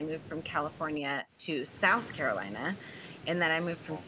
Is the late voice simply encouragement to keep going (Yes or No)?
Yes